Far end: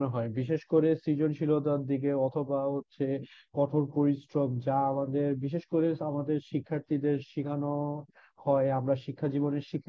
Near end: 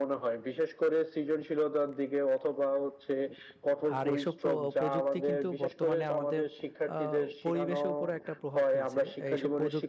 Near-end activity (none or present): present